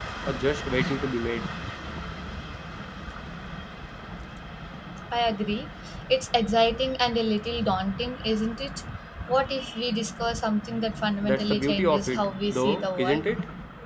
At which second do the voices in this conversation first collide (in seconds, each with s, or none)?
11.2 s